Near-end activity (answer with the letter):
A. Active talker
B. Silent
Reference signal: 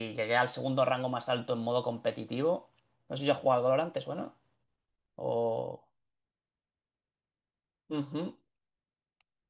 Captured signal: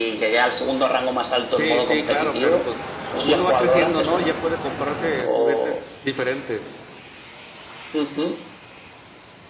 A